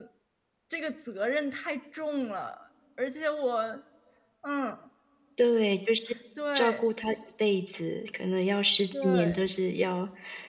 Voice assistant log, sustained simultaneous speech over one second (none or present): none